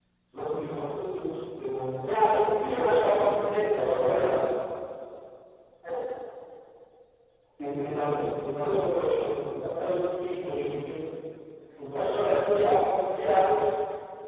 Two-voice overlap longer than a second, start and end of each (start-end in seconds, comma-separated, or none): 2.7-4.4